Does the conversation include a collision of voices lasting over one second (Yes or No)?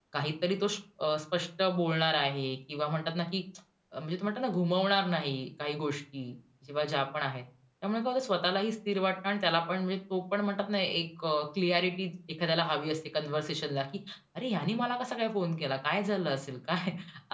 No